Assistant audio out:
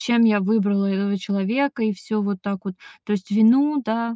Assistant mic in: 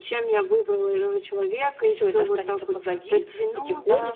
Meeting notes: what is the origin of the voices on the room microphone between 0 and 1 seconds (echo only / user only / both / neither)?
echo only